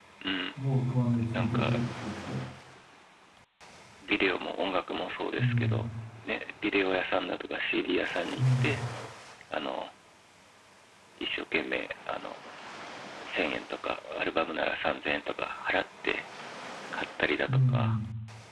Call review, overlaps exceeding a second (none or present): none